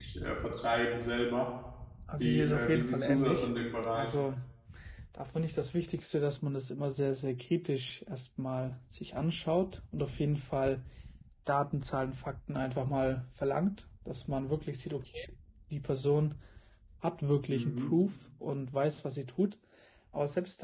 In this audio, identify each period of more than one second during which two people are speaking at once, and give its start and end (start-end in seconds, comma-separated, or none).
2.2-3.5